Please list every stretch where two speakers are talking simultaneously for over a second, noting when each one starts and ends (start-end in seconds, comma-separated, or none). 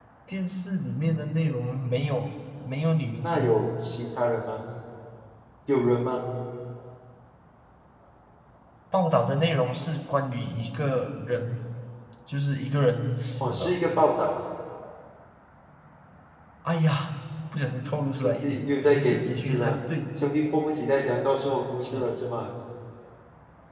18.1-19.8